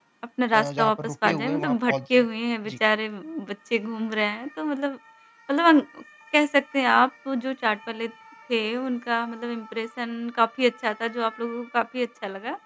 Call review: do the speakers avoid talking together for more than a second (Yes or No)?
No